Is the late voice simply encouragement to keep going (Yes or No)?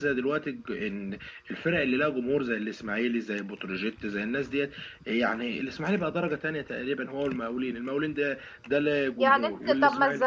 No